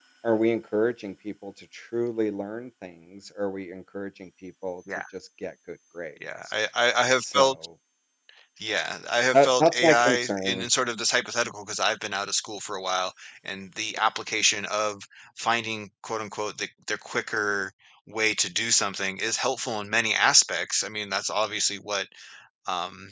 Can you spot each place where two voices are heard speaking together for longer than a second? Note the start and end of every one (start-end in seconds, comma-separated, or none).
9.3-10.7